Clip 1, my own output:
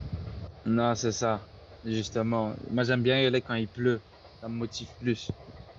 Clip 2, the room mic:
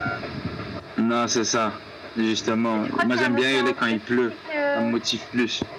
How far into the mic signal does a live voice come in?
2.8 s

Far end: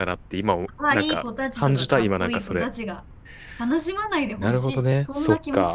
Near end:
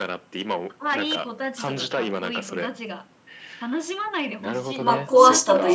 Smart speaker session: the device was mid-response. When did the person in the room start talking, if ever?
4.8 s

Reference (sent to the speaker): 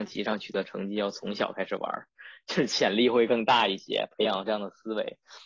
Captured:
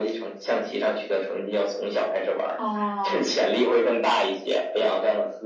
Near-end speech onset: 2.6 s

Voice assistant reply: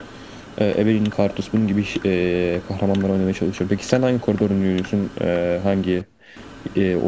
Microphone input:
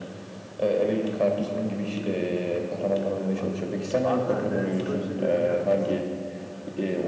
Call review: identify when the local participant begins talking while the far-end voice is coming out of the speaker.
3.3 s

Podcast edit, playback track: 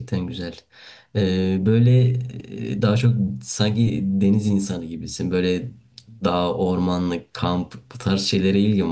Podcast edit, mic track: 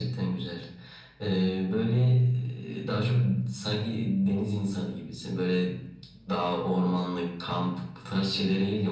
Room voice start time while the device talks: none

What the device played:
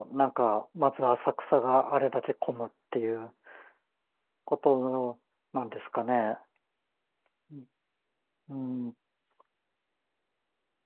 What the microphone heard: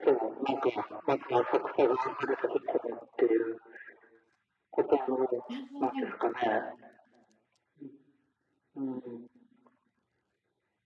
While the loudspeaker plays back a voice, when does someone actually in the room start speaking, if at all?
5.5 s

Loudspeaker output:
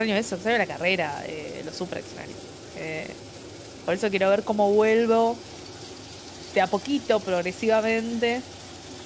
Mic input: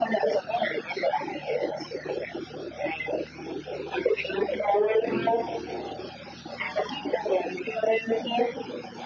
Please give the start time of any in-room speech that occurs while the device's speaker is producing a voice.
5.0 s

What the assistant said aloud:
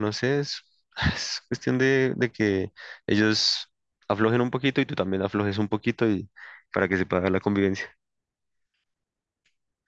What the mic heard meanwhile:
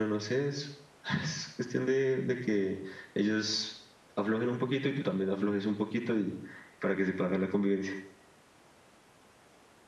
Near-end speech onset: none

